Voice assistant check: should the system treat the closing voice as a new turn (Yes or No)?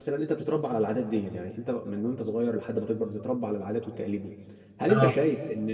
No